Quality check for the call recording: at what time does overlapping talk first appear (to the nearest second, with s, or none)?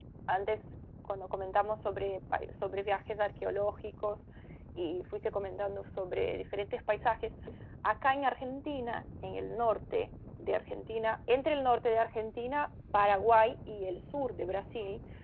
none